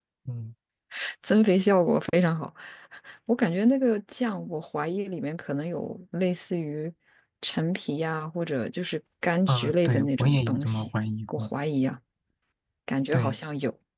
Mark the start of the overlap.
9 s

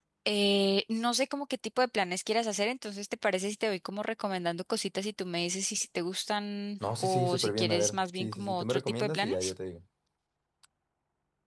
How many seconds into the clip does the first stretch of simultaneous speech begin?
7 s

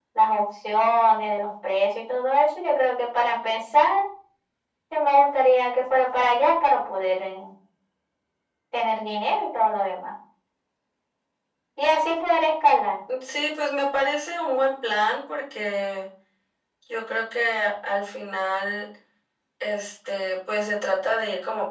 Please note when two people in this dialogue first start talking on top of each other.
none

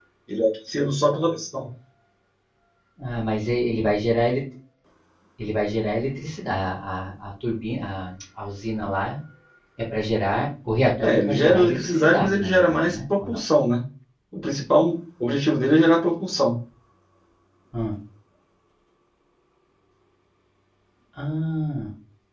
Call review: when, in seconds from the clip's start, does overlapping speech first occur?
11 s

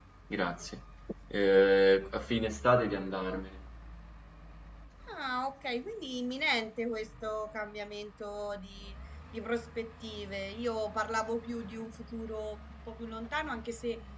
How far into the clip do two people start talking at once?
none

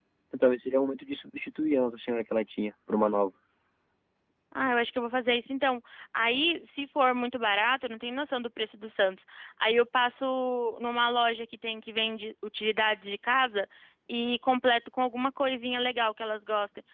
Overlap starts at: none

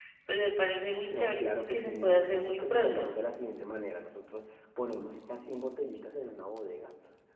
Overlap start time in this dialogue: 1 s

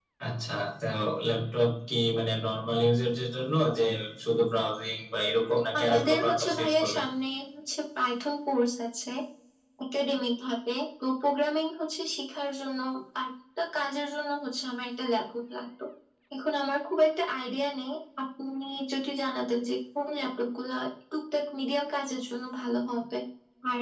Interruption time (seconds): 6 s

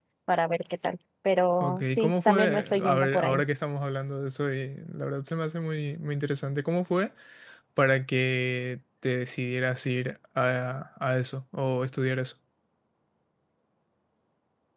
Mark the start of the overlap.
2 s

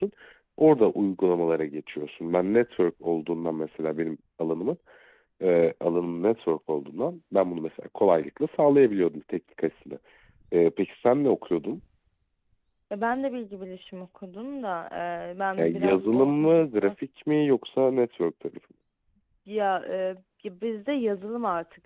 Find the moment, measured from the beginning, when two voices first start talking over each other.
16 s

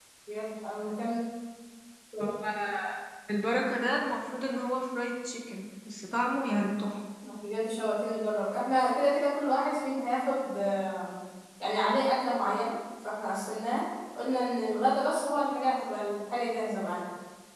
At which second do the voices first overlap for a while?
none

